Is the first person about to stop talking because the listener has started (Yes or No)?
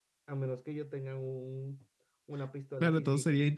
Yes